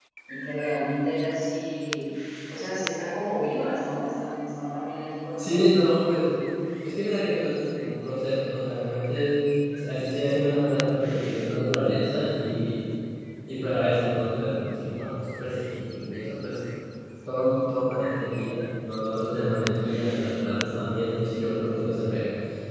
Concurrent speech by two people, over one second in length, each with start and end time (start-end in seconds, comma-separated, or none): none